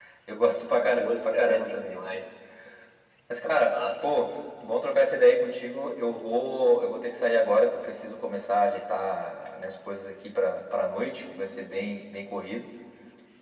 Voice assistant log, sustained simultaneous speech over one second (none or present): present